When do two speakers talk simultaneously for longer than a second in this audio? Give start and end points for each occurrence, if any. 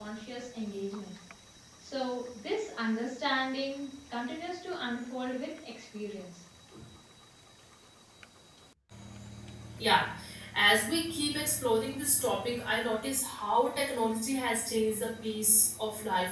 none

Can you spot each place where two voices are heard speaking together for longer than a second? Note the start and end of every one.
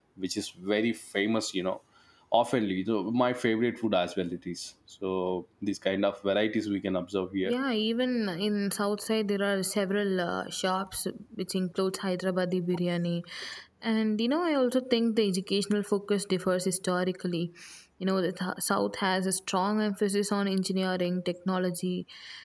none

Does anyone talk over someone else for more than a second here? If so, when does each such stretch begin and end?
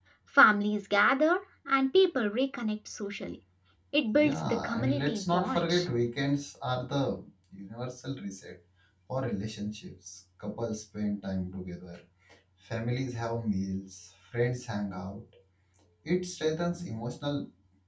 4.2-5.9

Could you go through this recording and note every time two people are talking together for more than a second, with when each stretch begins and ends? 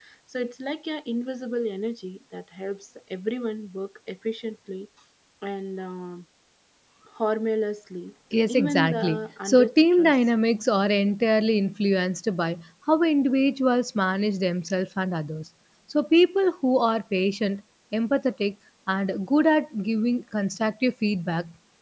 8.3-10.2

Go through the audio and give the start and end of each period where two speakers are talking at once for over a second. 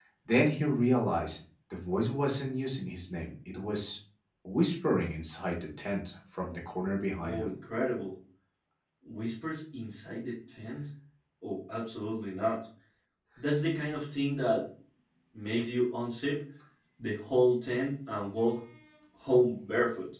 none

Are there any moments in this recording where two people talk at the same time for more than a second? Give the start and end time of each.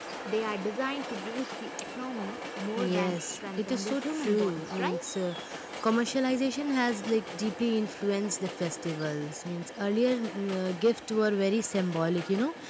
2.8-5.0

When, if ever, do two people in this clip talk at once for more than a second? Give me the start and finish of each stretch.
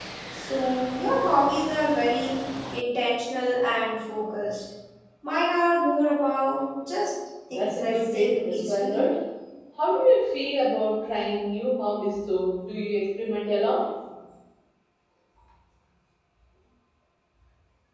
7.5-9.0

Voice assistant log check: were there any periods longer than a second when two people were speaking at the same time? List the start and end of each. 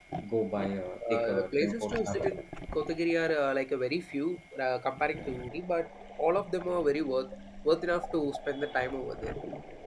1.1-2.3

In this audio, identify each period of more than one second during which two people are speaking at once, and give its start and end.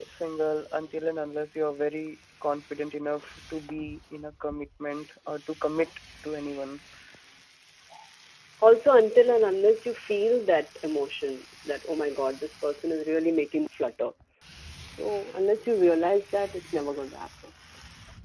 none

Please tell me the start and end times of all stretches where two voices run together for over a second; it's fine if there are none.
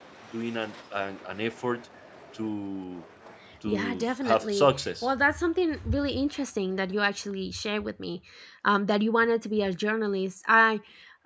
3.6-5.1

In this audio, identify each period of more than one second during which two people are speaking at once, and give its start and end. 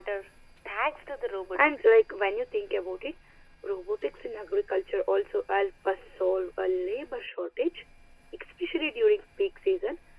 none

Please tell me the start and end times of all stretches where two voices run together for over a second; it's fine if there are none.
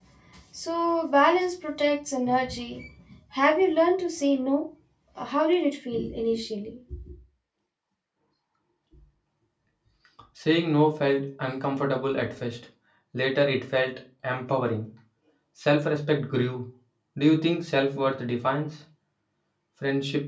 none

